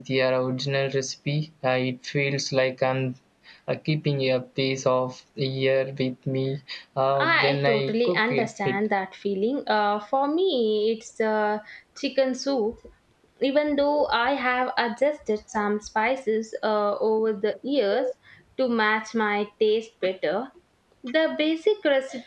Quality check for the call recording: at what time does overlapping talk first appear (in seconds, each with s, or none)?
7.1 s